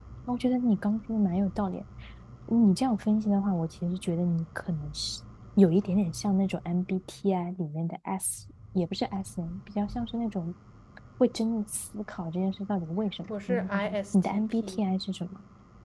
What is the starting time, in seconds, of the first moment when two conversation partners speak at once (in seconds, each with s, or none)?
13.3 s